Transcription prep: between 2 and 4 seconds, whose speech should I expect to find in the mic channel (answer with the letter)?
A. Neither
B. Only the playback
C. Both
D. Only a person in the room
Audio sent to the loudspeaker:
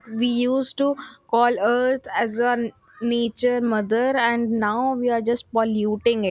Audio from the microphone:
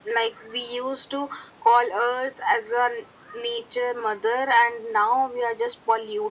B